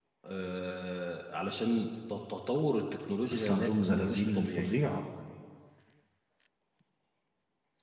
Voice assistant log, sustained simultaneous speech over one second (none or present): present